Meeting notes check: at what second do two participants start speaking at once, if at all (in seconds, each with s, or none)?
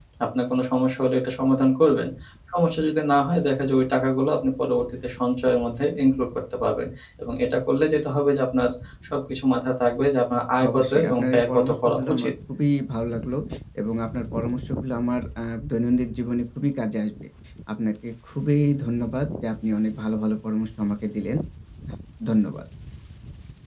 10.6 s